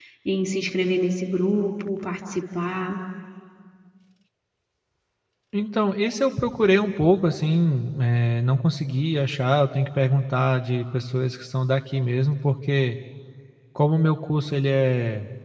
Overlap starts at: none

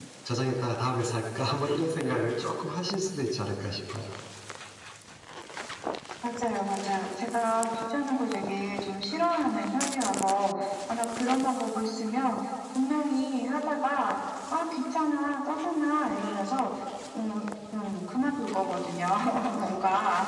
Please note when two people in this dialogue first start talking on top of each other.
none

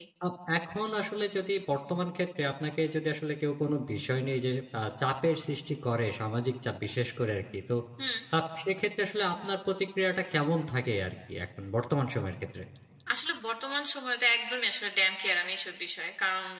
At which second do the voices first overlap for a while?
none

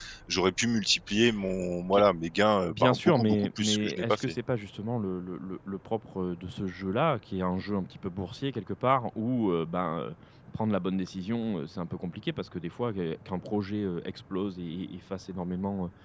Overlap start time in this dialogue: 2.7 s

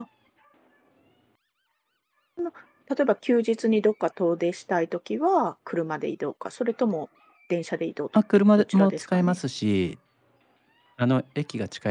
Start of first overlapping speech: 8.1 s

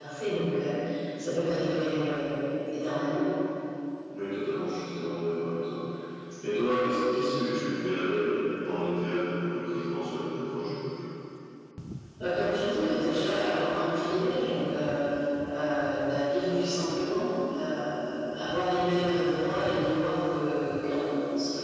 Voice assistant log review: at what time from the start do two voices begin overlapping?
none

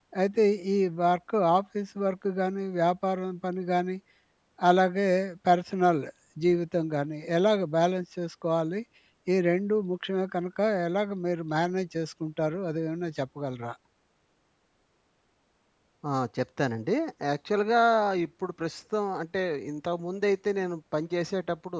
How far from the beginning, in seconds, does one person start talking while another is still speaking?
none

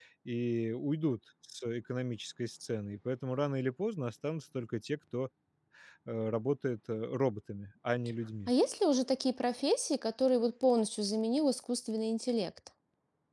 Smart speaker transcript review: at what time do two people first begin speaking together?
none

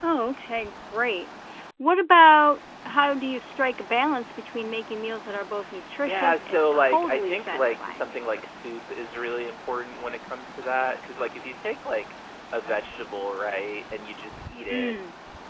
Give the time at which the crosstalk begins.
6.0 s

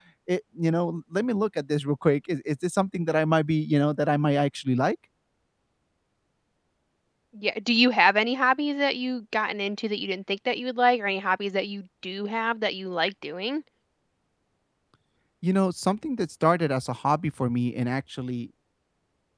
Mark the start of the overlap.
none

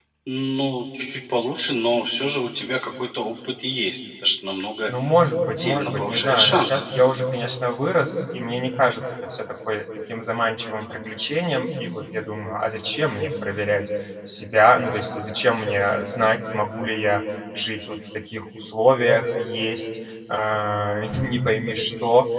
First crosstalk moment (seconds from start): 5.6 s

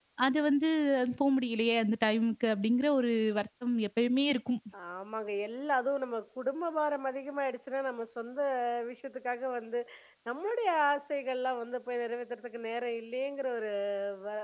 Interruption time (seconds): none

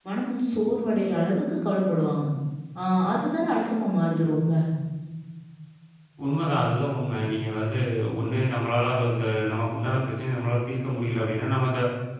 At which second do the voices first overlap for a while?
none

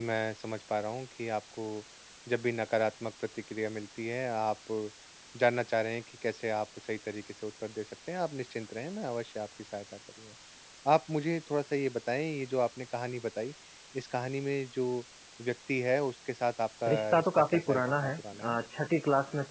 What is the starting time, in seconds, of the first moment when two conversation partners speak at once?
16.9 s

